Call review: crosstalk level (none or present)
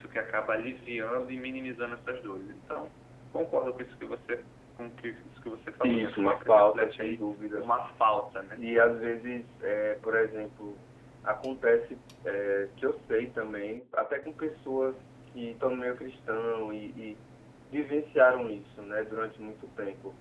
present